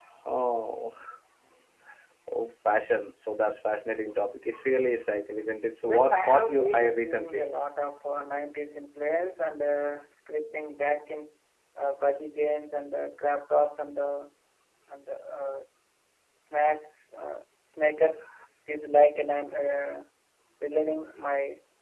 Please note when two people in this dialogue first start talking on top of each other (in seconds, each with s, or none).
5.9 s